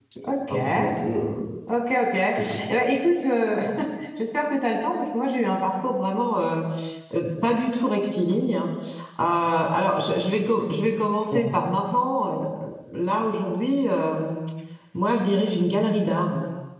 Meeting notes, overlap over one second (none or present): none